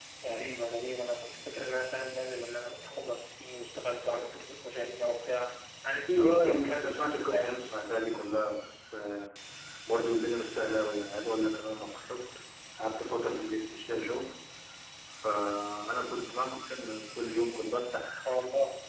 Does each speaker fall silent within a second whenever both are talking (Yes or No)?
No